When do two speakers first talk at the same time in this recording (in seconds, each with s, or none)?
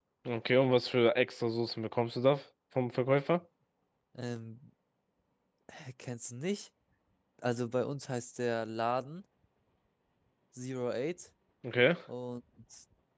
none